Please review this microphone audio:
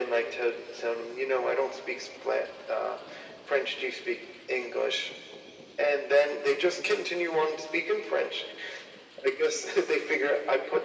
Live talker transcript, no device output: none

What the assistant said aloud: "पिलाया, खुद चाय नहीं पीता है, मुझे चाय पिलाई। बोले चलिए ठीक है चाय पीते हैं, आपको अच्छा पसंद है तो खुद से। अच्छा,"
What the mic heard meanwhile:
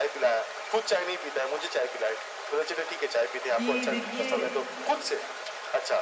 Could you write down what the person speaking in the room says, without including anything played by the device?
कि देखिए

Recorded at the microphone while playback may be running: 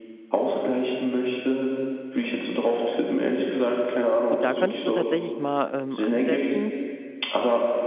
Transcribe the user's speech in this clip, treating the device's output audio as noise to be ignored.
Gut, da könntest du tatsächlich mal ähm, ansetzen.

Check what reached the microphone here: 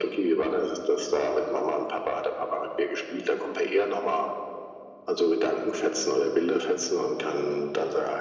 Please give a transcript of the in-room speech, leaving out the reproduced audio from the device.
none

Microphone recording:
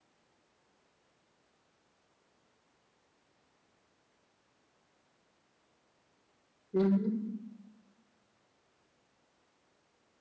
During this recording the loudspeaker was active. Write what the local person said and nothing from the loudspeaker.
हुँ, हुँ।

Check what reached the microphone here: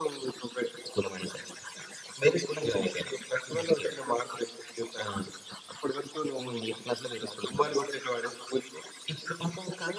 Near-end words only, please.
none

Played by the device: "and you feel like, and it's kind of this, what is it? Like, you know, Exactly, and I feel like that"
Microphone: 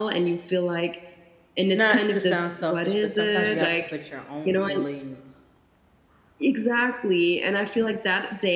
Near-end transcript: not to sound selfish, but sometimes you have to put your own feelings

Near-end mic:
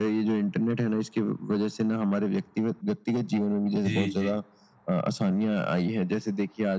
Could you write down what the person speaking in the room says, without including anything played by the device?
जी, जी।

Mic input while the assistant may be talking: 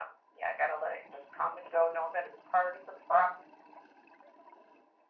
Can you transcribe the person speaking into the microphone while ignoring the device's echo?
none

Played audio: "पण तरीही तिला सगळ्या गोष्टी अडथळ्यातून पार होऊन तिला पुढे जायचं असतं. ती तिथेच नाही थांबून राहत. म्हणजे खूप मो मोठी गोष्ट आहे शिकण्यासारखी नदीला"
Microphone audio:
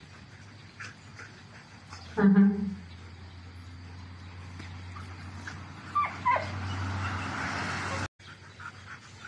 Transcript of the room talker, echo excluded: हां, हां.

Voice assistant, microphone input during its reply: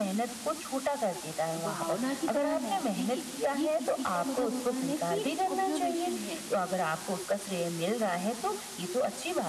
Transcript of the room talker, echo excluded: भावना की तरह नहीं देखिए ये किसी का मतलब होता है ना कि ऑब्जर्वेशन है

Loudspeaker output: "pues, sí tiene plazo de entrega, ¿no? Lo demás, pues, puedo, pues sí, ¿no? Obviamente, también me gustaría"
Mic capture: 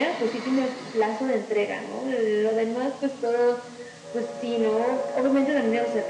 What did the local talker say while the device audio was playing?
none

